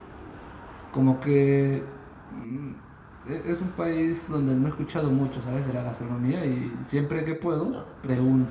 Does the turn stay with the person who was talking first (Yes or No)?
Yes